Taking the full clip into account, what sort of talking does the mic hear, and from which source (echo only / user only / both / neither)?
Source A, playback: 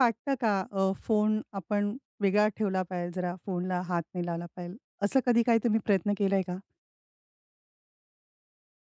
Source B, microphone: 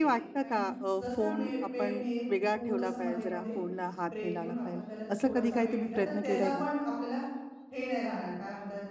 both